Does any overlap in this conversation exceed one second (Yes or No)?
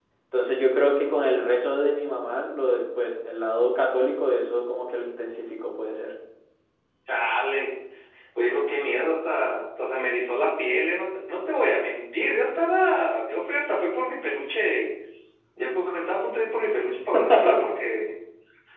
No